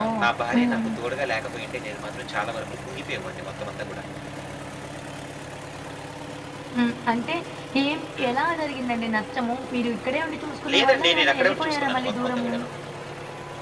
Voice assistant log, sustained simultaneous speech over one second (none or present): present